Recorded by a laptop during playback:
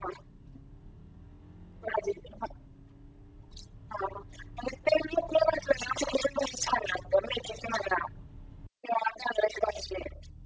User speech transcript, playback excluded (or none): none